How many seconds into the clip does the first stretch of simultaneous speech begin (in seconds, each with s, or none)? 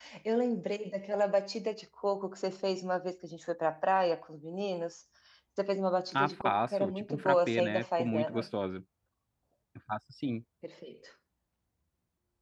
6.1 s